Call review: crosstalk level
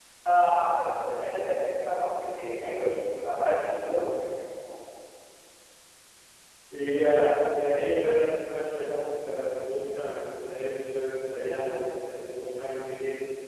none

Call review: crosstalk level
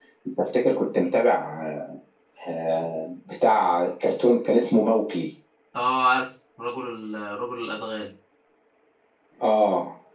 none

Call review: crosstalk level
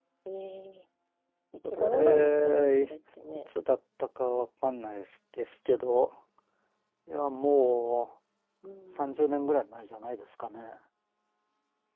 present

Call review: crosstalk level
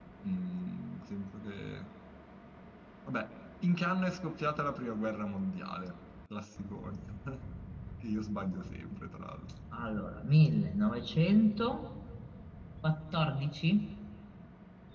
none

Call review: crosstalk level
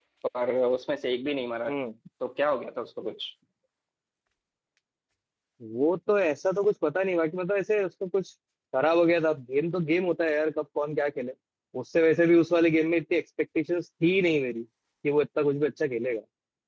none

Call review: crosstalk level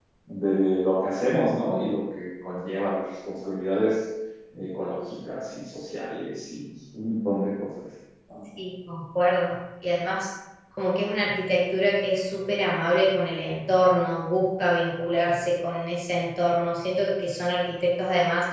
none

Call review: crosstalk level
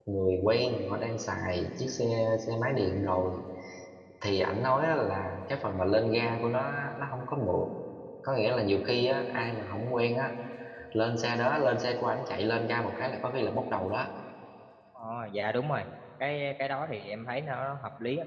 none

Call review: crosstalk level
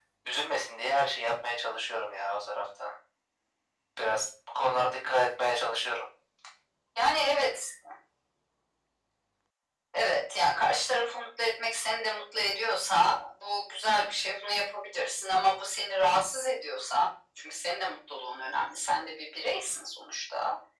none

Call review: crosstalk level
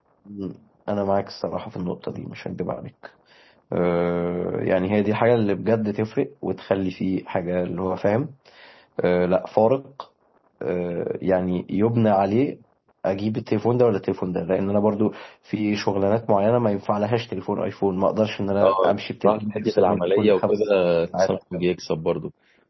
present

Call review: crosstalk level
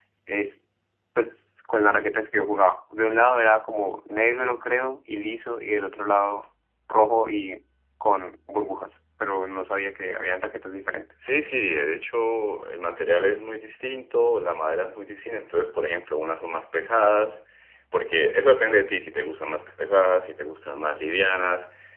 none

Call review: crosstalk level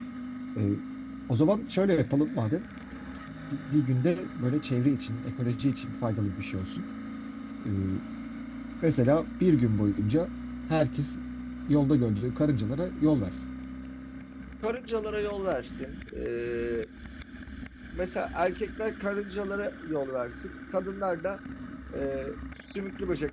none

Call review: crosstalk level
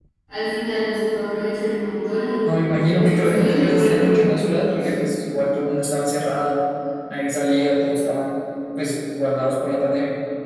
present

